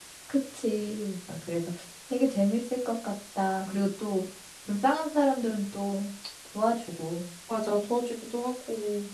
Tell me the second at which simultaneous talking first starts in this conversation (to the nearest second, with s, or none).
none